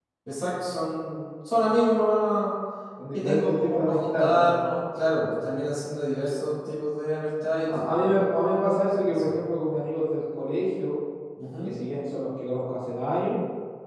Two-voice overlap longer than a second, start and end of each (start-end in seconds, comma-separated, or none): 3.1-4.6